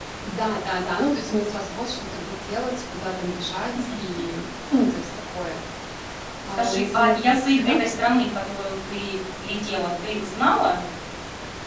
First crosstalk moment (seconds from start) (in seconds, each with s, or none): 6.5 s